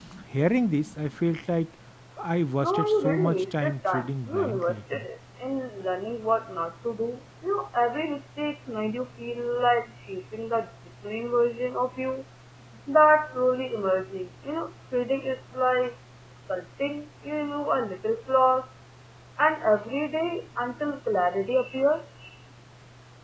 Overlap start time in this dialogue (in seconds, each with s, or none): 2.6 s